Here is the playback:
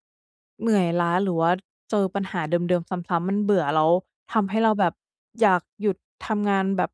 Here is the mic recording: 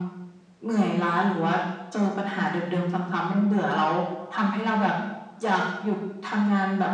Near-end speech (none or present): none